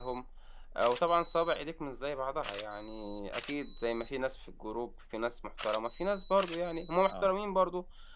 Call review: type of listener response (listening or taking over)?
listening